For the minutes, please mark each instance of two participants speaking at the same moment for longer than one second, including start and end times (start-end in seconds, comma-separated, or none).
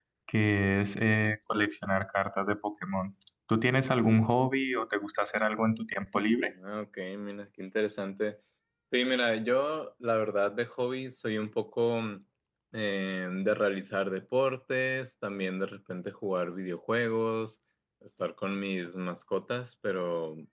none